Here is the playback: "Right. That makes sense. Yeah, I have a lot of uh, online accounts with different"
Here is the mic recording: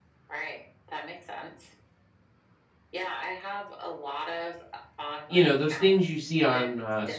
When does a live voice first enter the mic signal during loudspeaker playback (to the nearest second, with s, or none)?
5 s